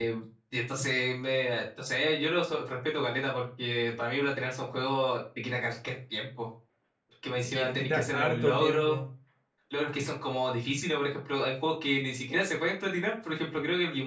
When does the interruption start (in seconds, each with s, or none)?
7.4 s